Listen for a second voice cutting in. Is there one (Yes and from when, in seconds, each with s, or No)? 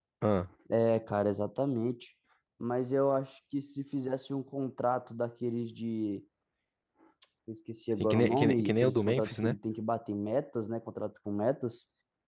Yes, from 8.0 s